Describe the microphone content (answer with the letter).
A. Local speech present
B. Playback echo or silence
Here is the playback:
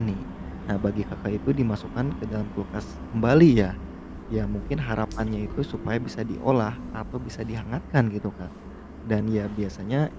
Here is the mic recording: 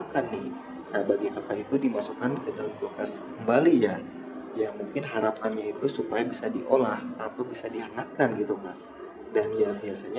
B